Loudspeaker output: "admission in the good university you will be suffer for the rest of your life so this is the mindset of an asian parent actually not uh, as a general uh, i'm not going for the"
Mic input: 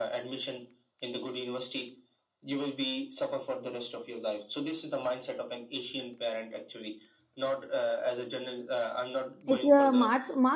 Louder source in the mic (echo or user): user